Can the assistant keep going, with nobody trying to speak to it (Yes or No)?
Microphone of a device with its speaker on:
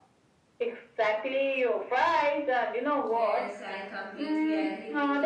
No